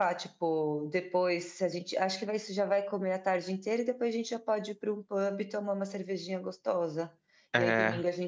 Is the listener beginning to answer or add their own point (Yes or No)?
No